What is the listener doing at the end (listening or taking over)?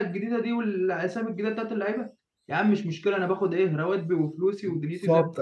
taking over